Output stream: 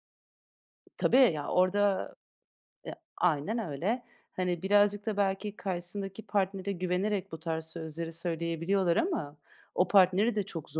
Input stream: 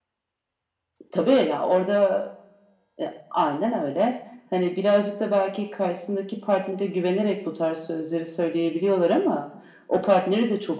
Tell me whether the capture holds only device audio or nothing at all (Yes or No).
Yes